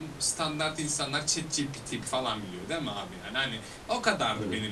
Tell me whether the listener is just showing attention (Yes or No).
Yes